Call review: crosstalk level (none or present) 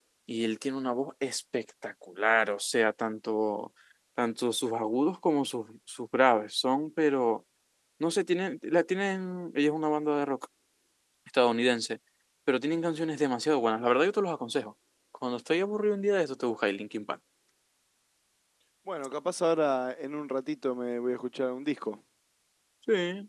none